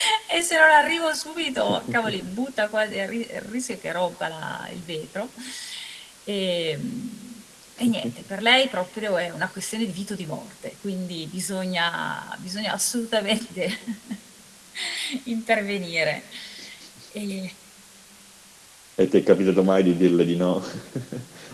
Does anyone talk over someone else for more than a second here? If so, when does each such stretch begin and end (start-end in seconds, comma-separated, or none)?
none